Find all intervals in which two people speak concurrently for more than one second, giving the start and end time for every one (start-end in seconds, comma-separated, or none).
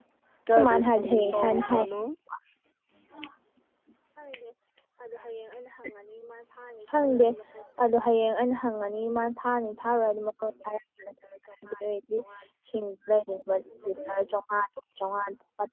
0.5-1.9